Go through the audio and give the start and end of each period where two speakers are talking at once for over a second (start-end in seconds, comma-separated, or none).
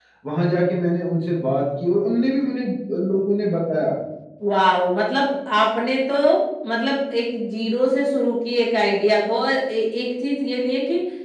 none